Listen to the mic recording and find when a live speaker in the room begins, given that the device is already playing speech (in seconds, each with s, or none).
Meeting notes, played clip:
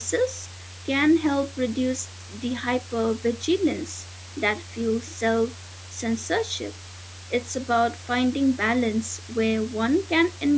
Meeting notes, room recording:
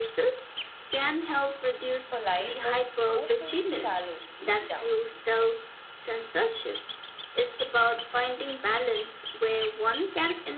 2.1 s